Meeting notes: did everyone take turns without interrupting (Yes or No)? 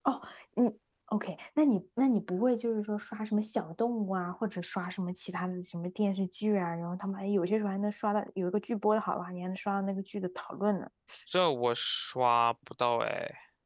Yes